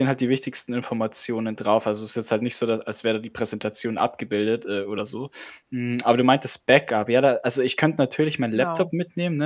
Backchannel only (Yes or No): Yes